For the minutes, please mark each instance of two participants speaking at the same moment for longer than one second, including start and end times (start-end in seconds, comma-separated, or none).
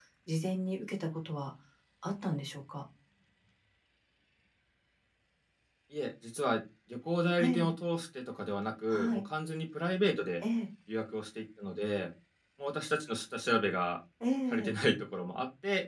none